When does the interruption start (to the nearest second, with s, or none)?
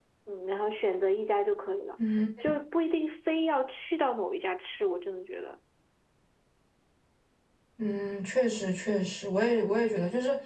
none